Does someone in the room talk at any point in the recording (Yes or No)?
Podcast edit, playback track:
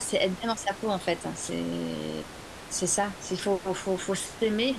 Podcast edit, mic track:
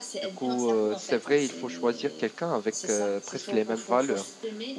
Yes